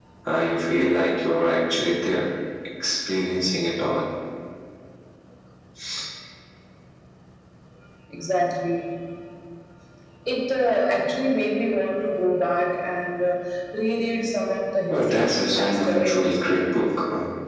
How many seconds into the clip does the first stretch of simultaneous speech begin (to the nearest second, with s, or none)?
15 s